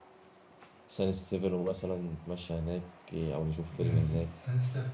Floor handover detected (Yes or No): Yes